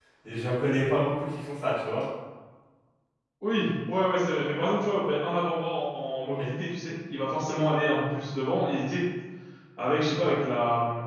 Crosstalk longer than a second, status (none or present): none